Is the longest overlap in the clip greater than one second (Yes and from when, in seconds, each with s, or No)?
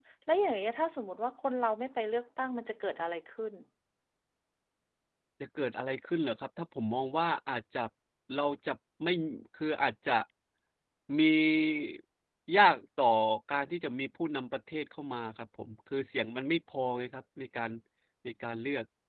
No